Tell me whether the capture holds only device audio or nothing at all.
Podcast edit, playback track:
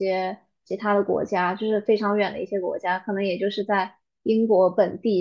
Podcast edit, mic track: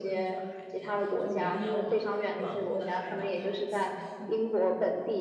No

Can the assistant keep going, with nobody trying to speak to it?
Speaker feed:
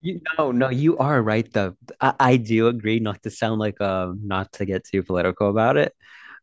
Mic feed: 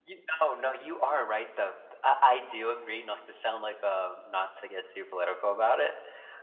Yes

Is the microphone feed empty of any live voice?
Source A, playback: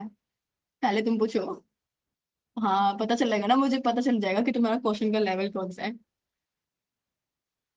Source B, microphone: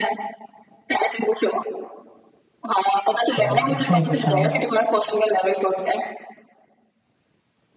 No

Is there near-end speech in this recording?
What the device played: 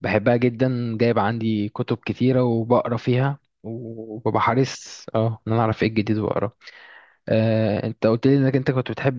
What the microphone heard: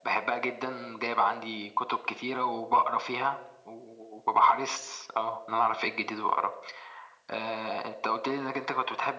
No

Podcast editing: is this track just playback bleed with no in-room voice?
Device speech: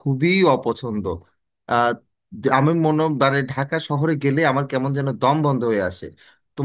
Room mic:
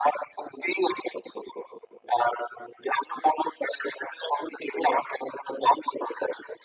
Yes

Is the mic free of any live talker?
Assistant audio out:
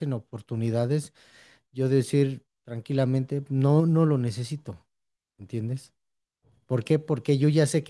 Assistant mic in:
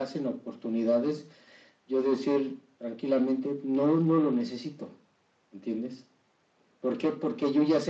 Yes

